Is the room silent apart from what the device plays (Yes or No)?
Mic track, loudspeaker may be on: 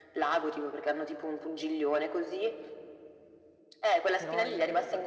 No